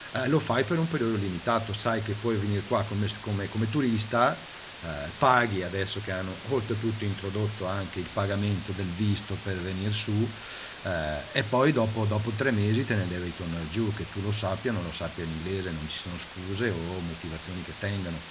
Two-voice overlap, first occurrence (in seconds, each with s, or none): none